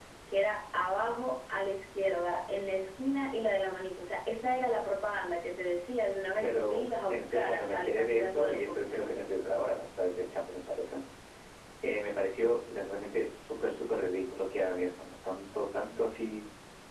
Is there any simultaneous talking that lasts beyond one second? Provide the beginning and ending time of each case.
6.4-9.1

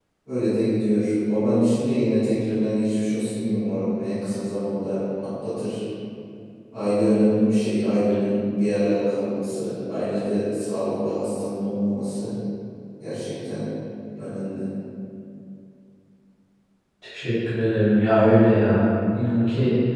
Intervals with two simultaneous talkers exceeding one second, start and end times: none

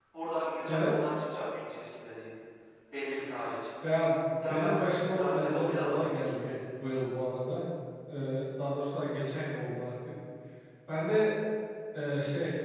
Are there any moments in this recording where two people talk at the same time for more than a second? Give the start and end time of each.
4.5-6.1

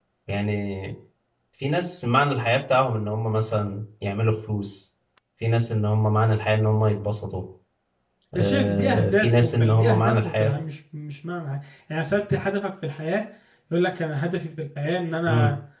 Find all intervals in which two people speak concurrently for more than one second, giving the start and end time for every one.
8.3-10.5

